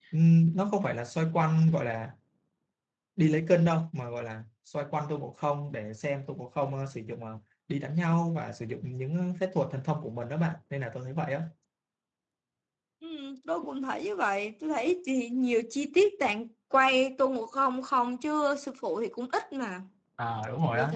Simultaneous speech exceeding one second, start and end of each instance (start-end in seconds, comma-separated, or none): none